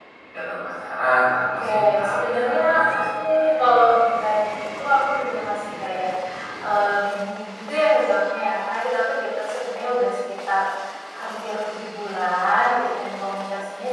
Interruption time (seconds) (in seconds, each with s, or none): 1.6 s